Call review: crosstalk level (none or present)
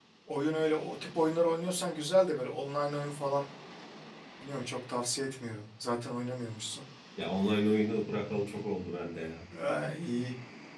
none